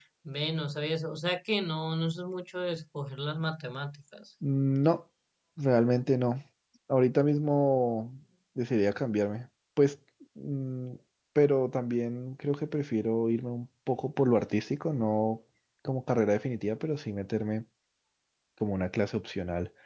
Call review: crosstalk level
none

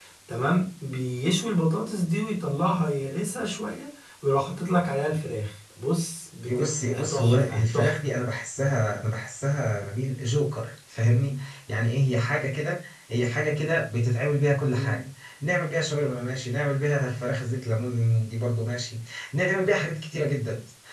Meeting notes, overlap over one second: present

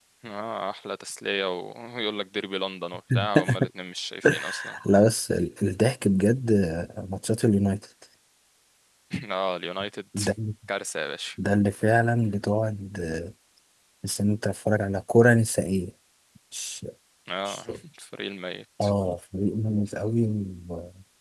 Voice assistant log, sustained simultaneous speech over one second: none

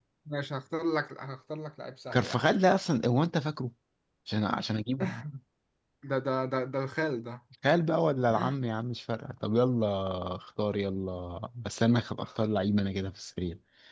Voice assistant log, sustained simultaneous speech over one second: none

